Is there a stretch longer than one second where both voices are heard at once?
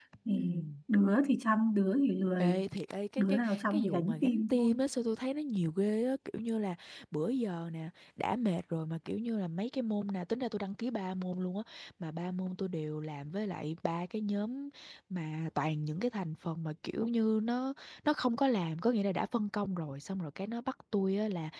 Yes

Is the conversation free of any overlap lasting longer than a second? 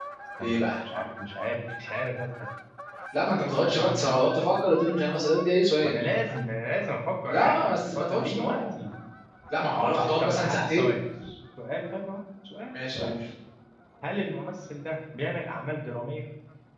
No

